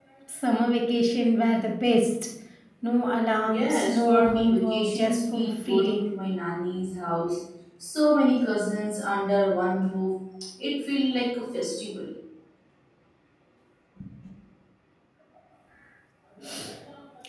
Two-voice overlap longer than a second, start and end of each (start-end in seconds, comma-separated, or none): 3.5-6.1